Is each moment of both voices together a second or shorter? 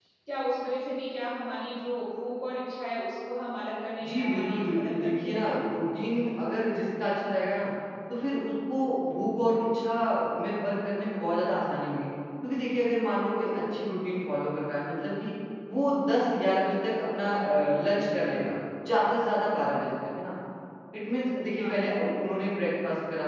No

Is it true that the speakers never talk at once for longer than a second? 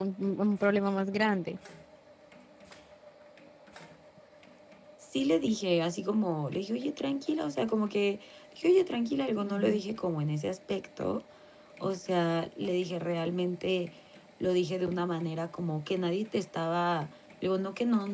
Yes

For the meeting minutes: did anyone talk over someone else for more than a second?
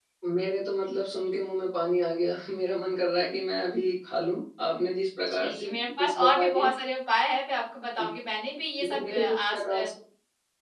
Yes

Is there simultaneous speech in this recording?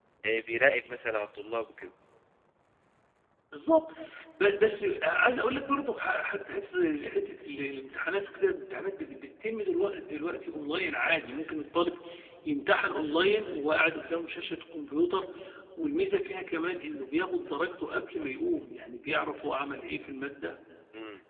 No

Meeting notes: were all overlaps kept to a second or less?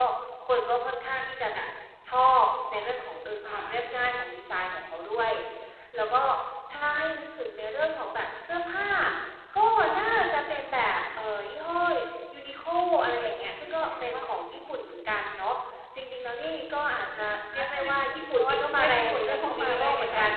No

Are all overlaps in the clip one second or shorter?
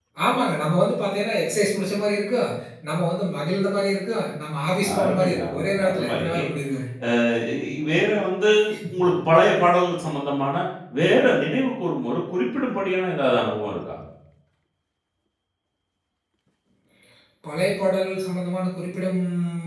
No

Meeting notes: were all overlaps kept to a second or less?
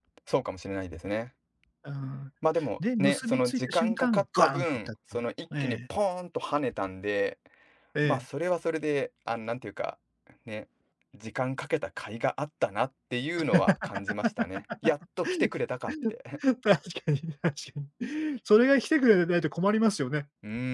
No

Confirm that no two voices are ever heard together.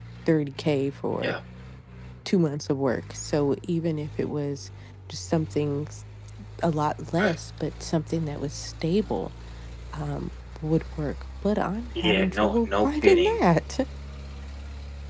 No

